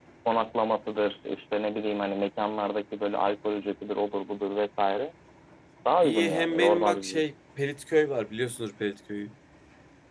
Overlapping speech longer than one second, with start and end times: 6.0-7.2

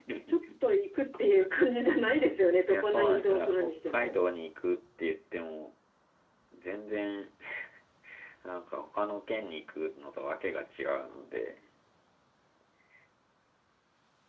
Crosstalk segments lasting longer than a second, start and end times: 2.7-4.1

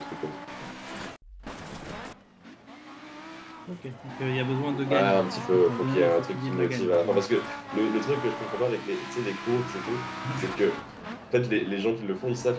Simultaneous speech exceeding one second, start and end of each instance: 4.7-7.2

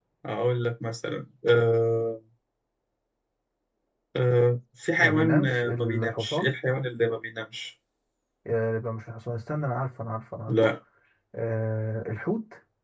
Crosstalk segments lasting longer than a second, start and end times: 5.0-6.5

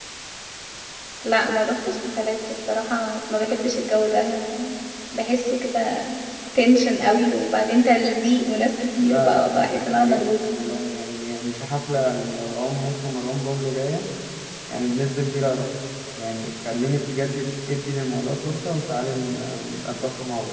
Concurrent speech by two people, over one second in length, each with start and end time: 9.0-10.2

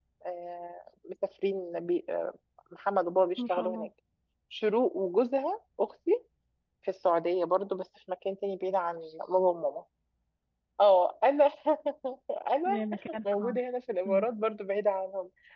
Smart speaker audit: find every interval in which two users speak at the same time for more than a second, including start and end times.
none

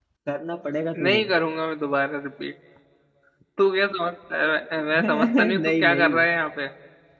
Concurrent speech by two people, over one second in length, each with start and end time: 5.0-6.2

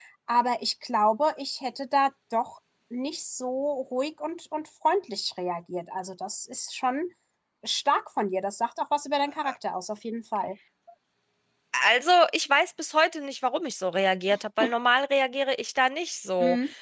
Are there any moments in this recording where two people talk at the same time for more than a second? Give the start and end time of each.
none

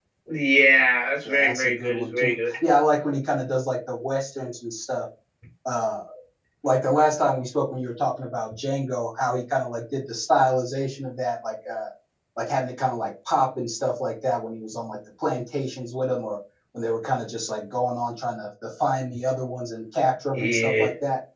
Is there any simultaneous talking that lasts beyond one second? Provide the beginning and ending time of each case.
1.2-2.6

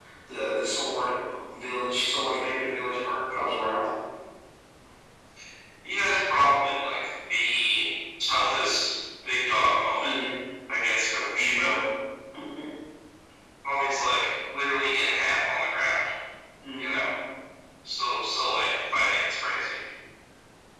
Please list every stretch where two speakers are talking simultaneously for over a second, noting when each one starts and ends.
none

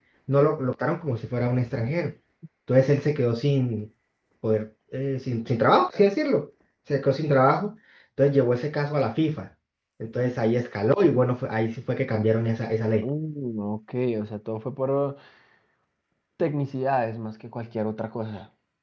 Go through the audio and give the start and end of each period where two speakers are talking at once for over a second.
none

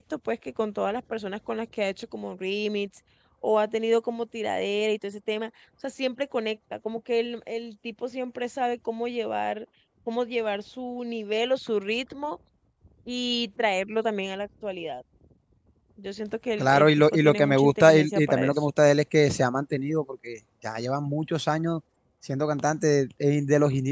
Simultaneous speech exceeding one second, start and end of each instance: 16.6-18.5

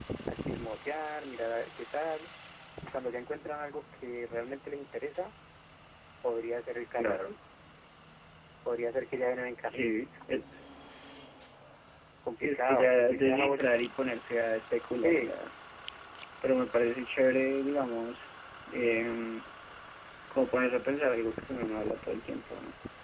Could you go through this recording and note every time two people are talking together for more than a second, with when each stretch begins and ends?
12.4-13.8

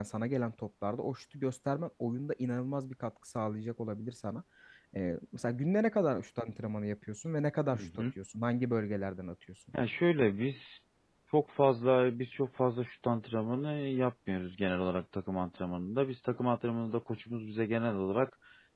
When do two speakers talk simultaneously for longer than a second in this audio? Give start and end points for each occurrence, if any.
none

